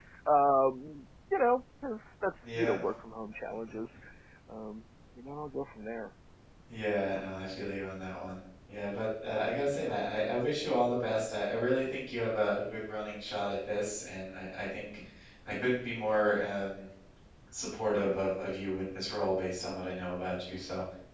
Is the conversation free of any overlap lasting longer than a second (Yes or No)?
Yes